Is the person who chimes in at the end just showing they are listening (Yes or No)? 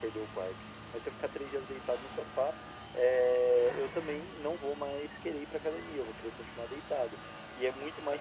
No